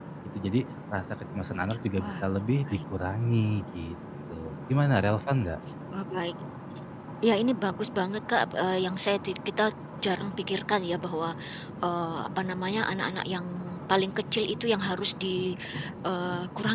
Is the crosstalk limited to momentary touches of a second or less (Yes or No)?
Yes